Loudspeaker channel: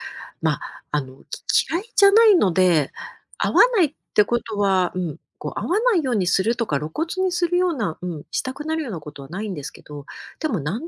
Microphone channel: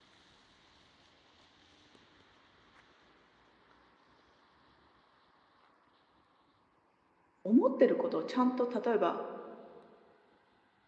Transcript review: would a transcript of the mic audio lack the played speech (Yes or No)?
Yes